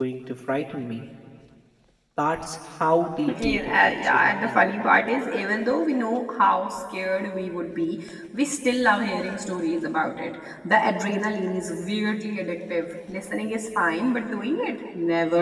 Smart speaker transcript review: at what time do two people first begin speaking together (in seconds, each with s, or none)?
3.3 s